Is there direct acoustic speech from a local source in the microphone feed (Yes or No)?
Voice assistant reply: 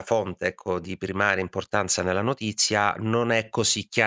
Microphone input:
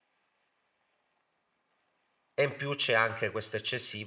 Yes